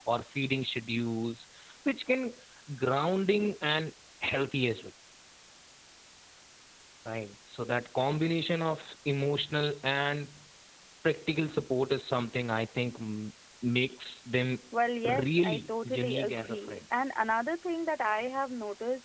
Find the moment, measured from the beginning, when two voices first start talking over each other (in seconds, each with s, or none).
15.2 s